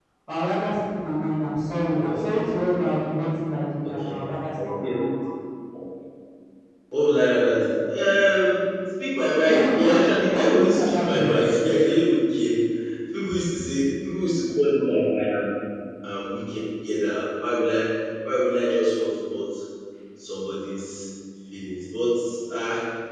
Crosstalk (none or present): present